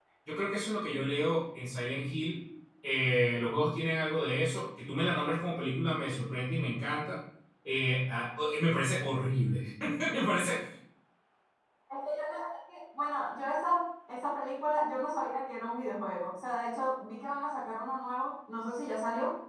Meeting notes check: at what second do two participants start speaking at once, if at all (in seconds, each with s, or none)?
none